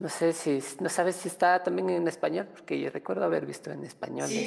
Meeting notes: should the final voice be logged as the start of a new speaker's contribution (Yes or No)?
Yes